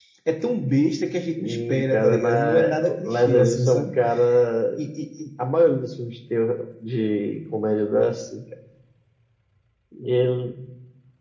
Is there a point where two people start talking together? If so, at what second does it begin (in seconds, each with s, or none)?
1.4 s